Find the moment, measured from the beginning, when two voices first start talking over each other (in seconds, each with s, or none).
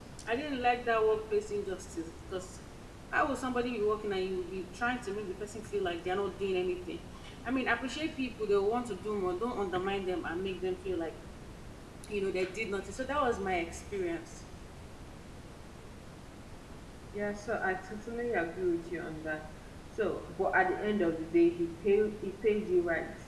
none